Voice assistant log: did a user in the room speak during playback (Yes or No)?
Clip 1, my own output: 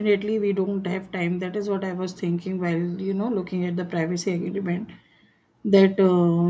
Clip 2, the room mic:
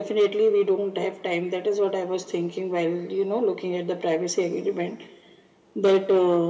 No